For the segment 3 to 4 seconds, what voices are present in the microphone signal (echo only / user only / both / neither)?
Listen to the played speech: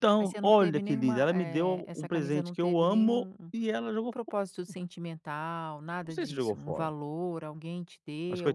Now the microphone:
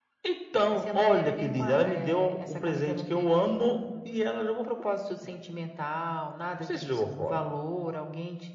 echo only